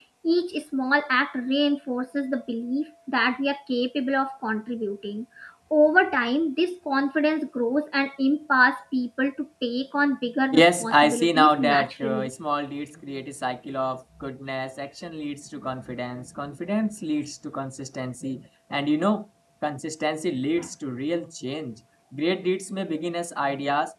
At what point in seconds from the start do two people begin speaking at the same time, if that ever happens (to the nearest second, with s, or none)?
11 s